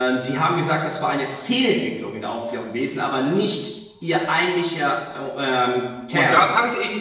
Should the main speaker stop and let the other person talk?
Yes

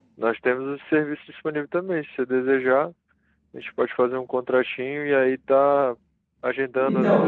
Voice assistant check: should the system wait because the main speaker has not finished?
Yes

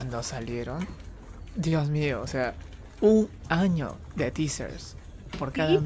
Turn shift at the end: Yes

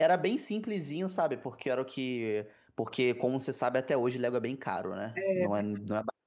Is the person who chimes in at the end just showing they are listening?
Yes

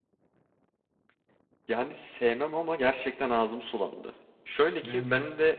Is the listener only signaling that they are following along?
Yes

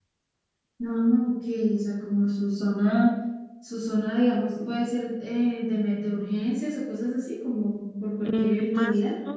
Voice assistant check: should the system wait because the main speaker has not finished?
No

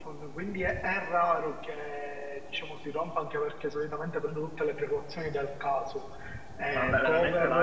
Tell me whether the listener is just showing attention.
No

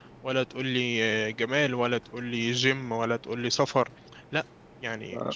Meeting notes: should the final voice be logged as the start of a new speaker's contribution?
Yes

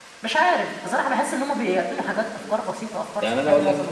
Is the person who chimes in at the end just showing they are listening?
No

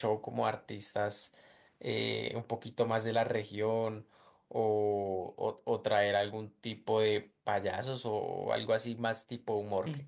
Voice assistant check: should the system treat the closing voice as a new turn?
No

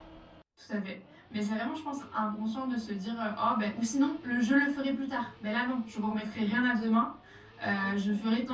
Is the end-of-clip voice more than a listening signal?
No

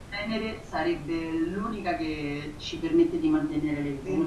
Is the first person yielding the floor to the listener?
Yes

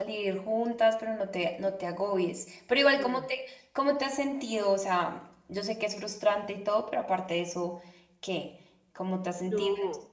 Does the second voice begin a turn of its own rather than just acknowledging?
Yes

